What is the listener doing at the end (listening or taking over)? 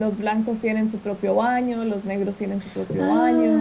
taking over